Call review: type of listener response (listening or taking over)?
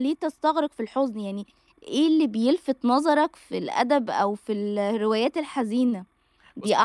listening